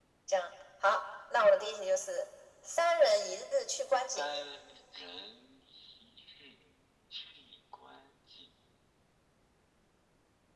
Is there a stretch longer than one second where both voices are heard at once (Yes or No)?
No